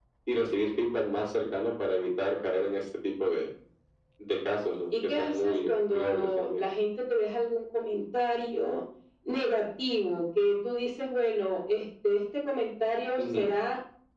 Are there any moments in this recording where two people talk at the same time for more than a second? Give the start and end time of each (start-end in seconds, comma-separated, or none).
5.1-6.6